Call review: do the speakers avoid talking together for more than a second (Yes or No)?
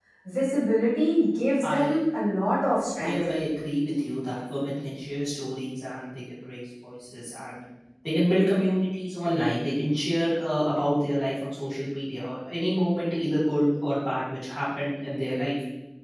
Yes